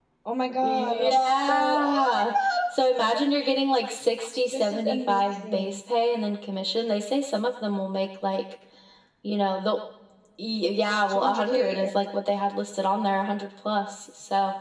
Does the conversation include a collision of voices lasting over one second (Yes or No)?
Yes